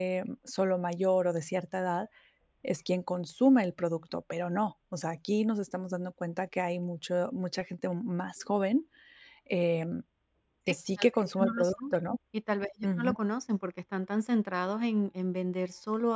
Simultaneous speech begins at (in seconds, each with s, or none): 10.7 s